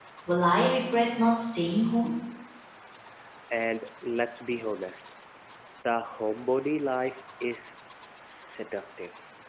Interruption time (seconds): none

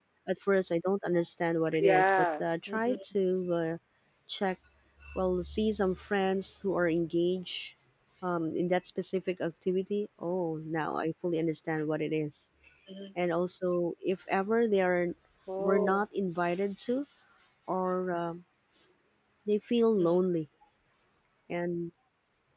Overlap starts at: 2 s

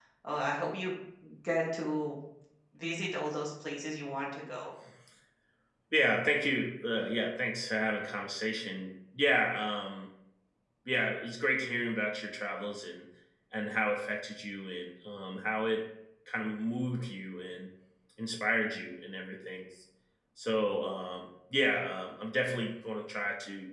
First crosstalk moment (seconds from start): none

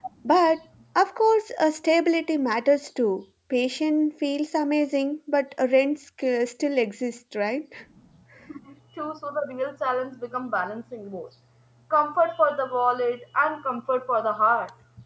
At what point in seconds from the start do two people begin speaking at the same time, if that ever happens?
none

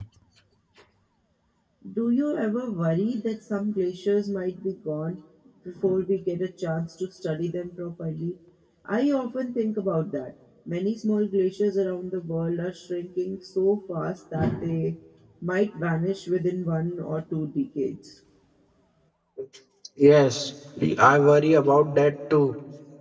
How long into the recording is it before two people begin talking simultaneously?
none

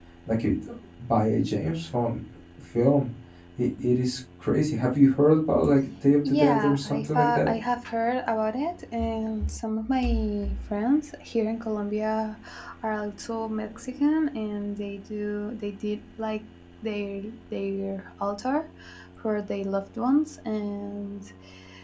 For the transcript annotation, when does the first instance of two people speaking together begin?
6 s

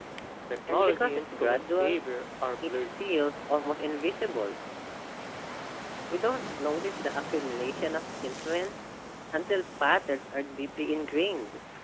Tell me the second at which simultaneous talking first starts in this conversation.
1 s

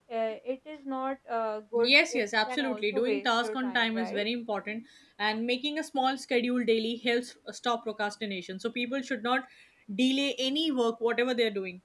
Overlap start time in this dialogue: 2 s

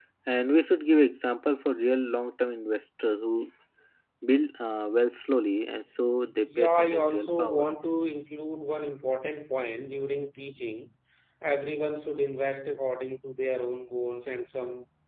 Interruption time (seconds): 6 s

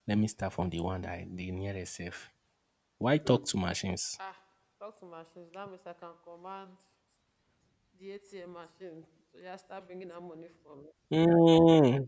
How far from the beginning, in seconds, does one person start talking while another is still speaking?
none

